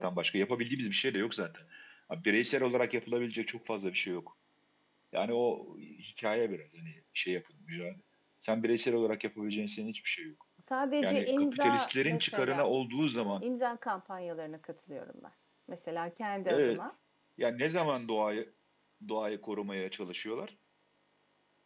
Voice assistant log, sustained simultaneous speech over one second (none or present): present